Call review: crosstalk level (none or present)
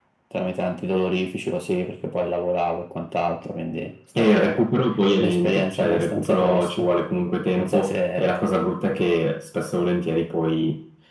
present